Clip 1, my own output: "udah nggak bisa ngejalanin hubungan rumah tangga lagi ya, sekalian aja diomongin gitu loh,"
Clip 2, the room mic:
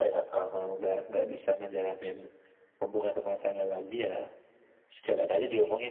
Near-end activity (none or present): none